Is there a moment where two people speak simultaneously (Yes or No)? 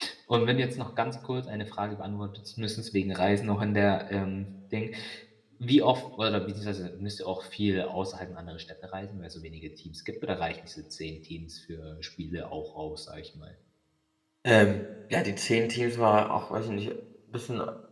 No